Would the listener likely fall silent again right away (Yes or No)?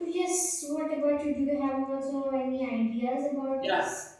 No